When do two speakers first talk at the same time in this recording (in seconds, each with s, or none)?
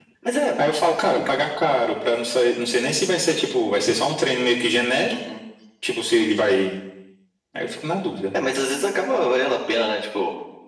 none